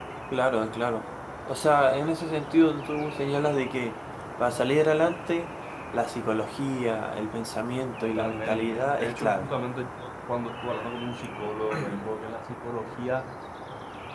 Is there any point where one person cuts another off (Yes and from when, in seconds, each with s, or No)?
Yes, from 8.0 s